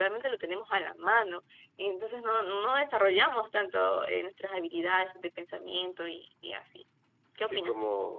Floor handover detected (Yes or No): Yes